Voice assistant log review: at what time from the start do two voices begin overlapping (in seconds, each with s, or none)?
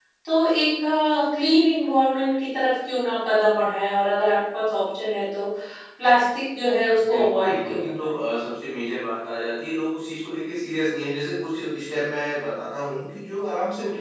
6.9 s